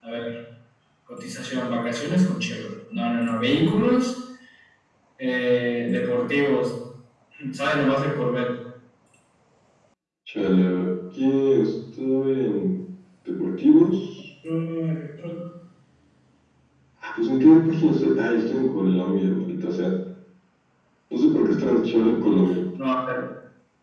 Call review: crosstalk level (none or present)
none